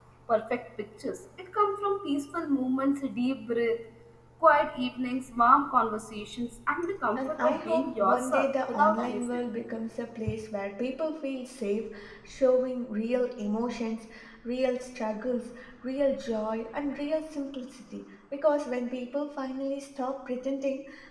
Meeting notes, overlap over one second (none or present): present